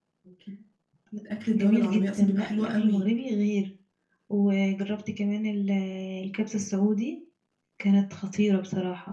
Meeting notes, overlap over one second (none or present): present